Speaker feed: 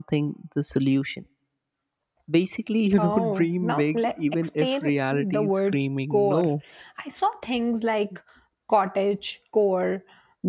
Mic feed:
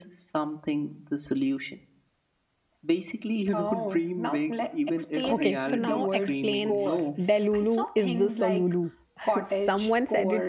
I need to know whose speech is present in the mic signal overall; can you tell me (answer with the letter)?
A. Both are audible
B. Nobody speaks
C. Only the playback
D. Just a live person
A